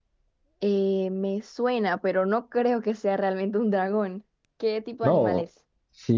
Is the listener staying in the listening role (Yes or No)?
No